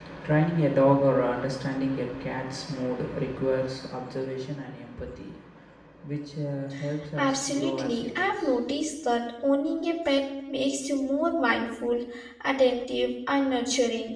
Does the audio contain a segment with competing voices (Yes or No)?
Yes